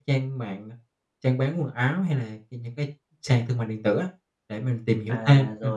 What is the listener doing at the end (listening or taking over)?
taking over